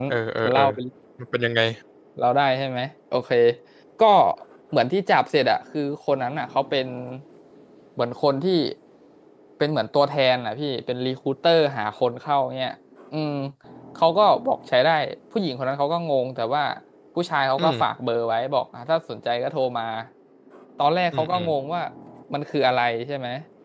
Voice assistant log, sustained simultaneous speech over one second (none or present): none